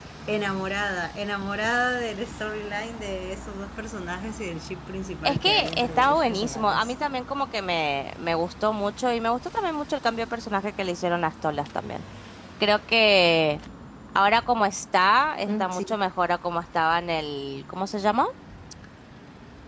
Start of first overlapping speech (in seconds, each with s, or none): 5.2 s